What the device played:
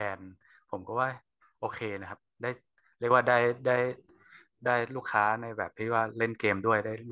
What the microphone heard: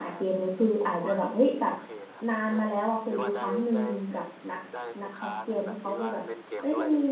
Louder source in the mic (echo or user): user